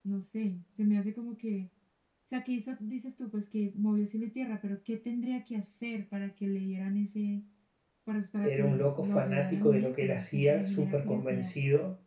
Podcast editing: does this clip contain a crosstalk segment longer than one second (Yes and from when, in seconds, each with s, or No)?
Yes, from 8.4 s